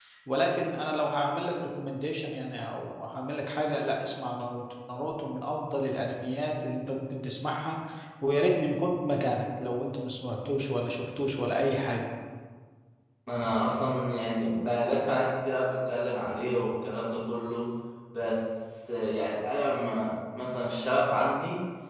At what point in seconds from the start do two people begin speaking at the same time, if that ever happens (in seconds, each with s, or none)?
none